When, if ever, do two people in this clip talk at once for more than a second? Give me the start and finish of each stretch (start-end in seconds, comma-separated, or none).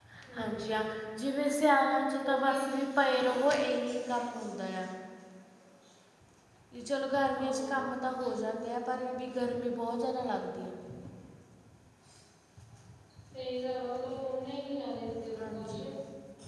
none